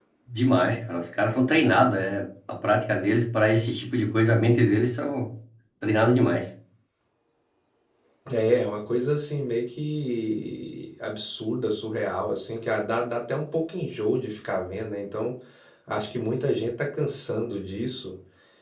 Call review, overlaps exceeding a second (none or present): none